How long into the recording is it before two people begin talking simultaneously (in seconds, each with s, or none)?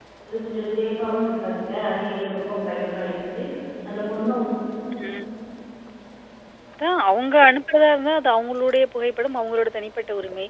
none